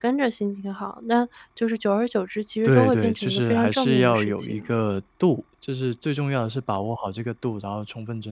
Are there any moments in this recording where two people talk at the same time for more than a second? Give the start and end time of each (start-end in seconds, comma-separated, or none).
2.6-4.7